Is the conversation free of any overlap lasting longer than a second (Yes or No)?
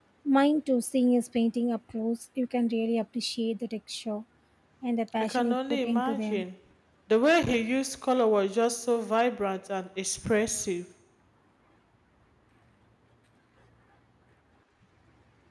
No